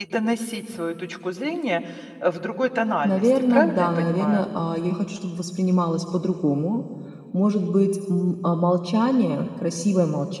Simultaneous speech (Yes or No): Yes